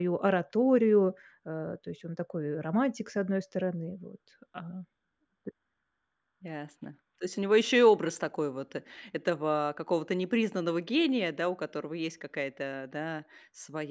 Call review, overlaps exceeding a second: none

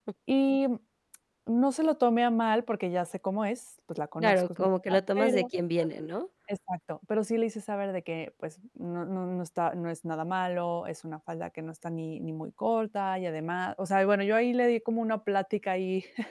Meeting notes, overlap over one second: present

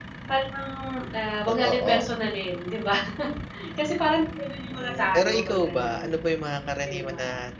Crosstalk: present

